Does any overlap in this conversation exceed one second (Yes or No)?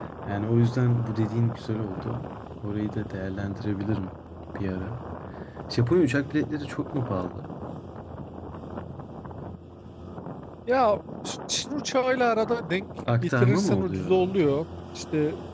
Yes